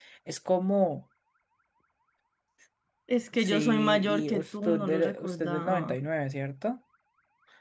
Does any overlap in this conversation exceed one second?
Yes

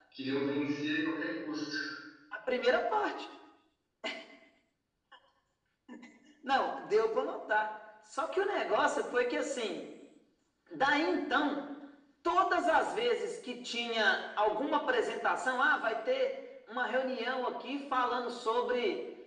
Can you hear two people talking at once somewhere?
No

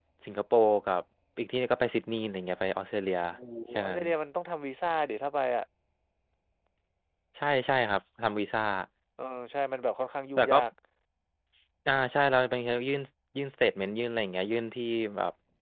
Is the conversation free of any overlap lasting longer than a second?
Yes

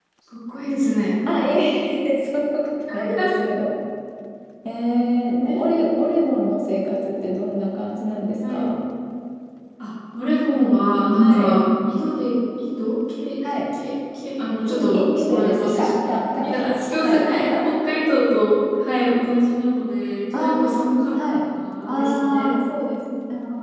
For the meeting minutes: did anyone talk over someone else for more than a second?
Yes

